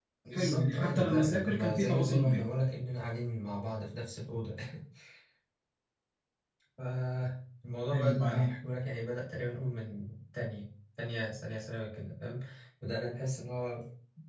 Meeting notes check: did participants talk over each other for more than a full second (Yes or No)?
Yes